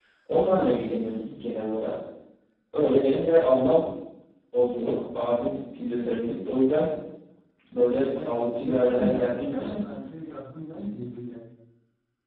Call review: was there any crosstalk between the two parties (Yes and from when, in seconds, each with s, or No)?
Yes, from 8.2 s